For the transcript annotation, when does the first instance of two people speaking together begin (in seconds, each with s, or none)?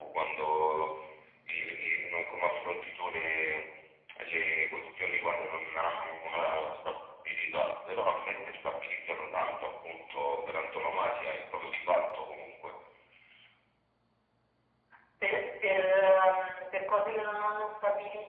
none